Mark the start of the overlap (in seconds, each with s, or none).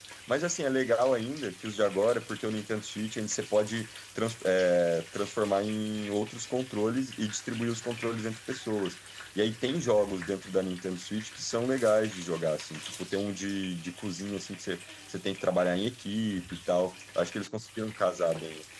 none